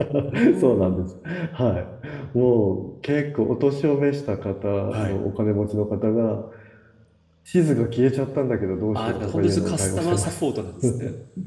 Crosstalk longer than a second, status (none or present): present